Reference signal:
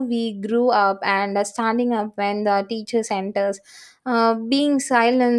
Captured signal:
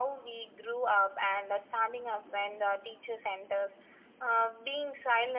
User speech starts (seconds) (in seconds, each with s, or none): none